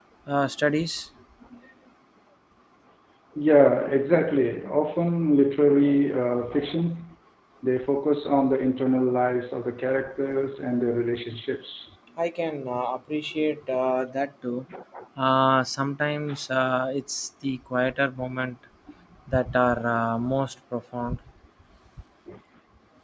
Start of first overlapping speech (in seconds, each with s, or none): none